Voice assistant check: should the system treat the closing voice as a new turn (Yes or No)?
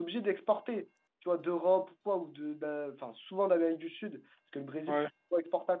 No